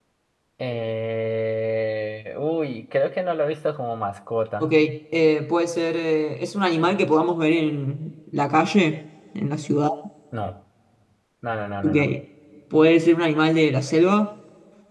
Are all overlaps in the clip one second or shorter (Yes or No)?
Yes